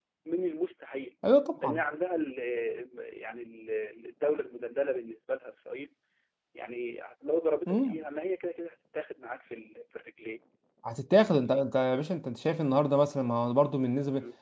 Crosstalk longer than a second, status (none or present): none